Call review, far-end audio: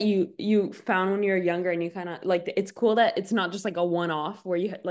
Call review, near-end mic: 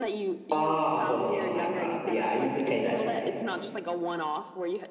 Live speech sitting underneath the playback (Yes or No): No